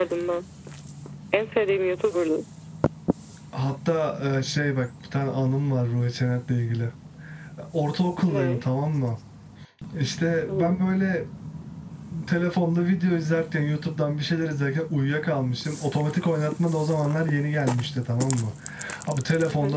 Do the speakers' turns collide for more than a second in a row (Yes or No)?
No